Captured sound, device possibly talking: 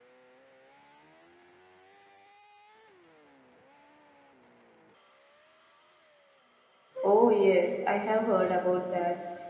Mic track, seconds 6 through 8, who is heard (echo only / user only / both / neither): user only